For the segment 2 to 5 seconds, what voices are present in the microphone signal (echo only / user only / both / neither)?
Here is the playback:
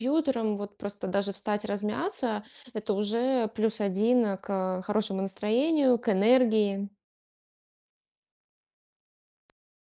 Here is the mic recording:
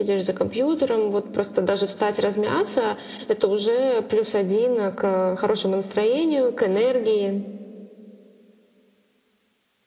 echo only